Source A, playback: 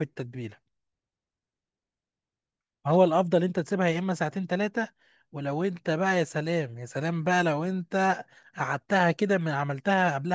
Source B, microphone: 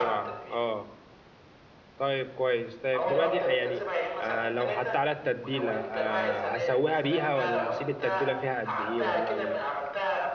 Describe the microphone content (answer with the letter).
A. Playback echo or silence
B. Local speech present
B